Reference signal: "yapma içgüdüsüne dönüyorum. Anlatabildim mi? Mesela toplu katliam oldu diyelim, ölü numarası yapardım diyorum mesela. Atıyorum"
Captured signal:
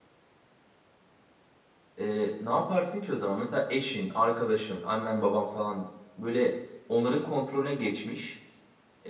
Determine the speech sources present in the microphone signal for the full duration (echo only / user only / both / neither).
user only